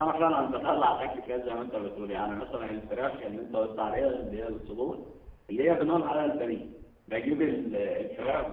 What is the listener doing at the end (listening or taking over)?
listening